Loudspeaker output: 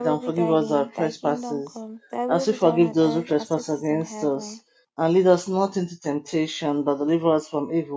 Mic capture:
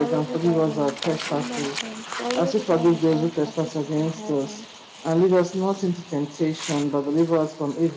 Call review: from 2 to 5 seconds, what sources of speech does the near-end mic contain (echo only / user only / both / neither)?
echo only